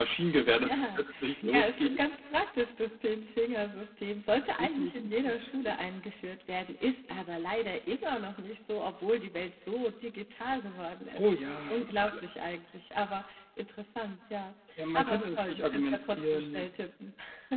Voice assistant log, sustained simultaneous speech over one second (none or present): present